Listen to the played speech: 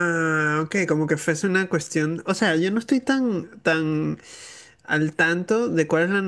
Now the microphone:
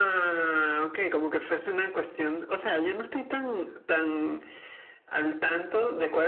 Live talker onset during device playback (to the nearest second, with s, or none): none